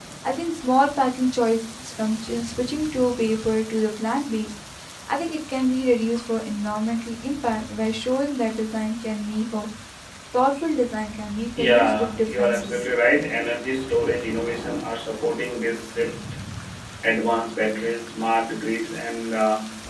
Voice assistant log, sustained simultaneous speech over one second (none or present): present